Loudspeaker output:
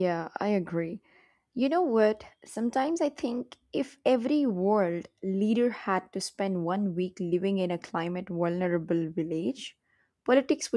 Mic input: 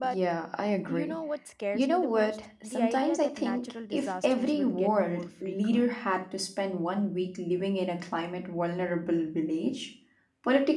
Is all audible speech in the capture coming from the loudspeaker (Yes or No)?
No